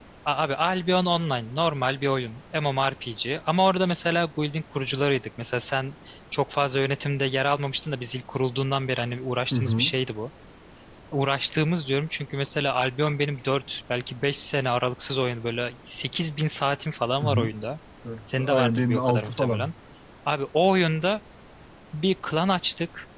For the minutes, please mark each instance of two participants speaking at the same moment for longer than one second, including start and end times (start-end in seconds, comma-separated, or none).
18.4-19.7